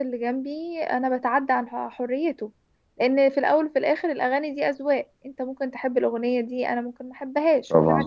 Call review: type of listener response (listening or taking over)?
taking over